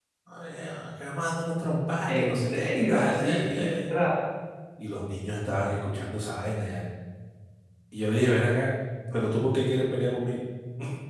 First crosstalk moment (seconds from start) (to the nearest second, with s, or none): 2 s